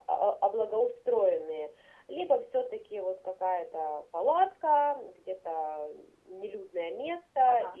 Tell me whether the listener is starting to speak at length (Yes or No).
No